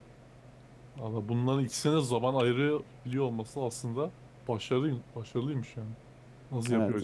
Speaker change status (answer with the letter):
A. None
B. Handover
B